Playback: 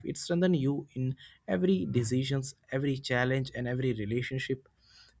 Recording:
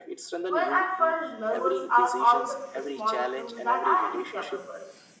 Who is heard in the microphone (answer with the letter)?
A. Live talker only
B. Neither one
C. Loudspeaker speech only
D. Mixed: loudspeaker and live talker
D